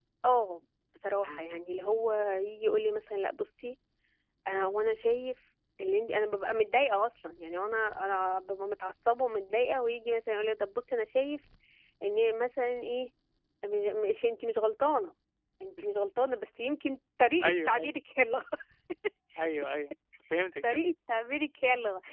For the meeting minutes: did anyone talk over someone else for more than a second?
No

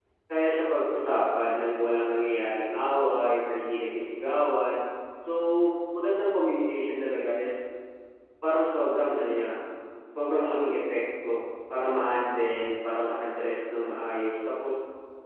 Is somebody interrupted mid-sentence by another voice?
No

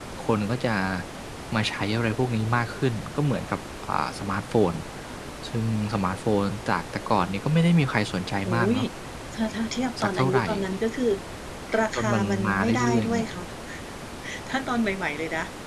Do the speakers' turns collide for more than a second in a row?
Yes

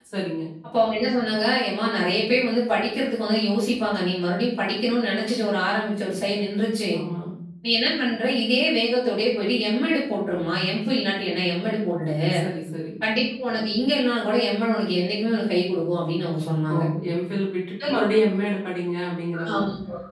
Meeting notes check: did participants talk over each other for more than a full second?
No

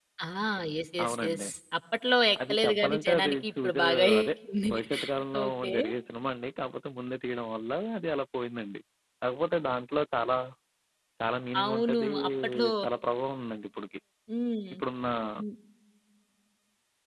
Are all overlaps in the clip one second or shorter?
No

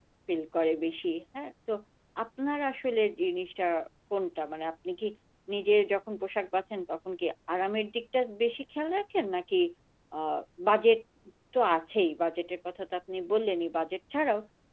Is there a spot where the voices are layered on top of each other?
No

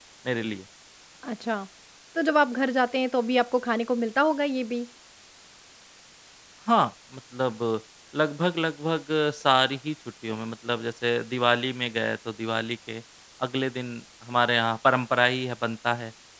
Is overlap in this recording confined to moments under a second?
Yes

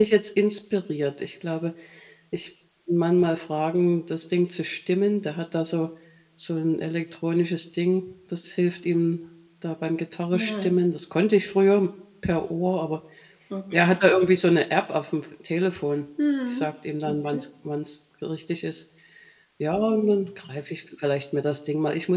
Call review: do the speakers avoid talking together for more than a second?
Yes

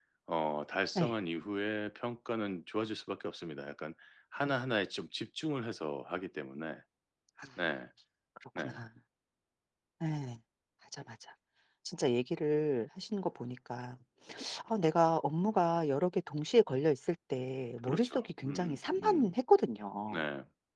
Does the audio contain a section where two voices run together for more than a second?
Yes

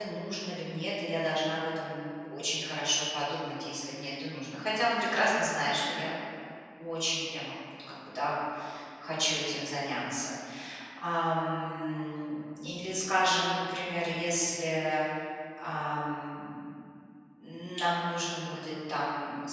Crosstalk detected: No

